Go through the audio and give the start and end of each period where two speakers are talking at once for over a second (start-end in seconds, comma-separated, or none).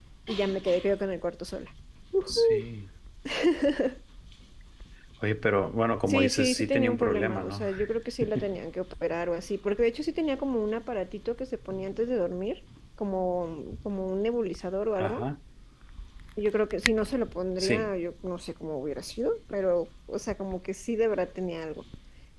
6.0-7.6